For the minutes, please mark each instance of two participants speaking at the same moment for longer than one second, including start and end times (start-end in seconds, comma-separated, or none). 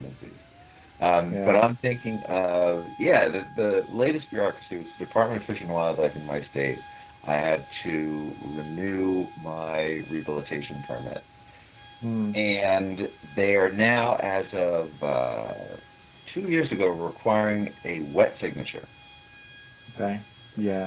none